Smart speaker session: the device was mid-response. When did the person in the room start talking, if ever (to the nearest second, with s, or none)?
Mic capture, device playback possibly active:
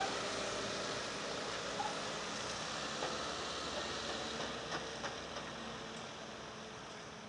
none